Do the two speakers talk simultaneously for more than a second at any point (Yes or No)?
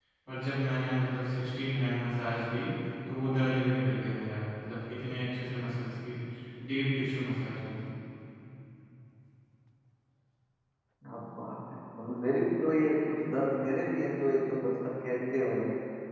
No